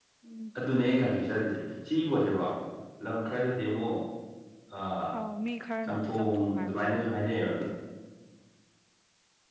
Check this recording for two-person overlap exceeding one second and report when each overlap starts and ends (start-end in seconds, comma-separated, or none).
5.9-7.2